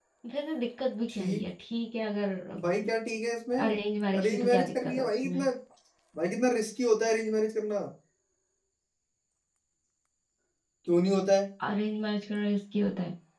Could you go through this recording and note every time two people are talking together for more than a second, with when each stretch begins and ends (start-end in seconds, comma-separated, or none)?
4.2-5.5